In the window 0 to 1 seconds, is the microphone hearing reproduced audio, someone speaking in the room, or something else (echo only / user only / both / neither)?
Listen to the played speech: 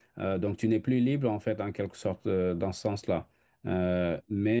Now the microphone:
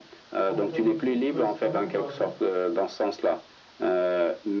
both